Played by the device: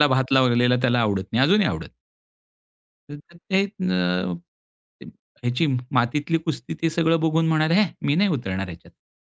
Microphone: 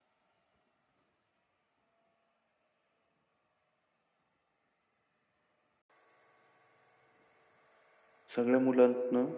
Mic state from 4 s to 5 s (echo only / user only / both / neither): neither